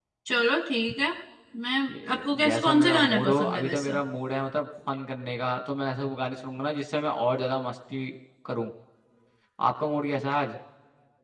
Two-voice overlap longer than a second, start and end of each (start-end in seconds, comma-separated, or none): 1.9-3.9